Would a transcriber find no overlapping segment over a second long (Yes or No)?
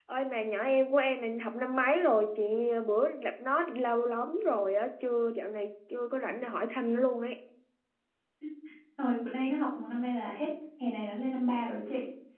Yes